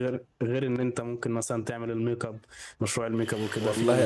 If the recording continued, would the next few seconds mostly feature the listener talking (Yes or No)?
Yes